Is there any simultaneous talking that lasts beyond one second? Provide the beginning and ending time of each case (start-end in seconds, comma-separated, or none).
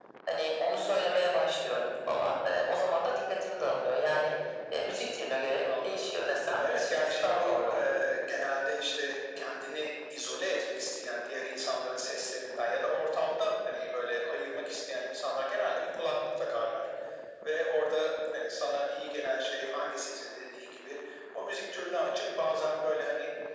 6.6-7.9